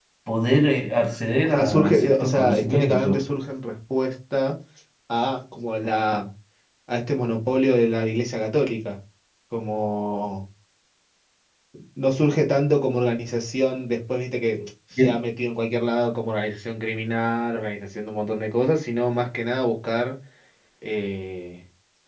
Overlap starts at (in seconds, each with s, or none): 1.4 s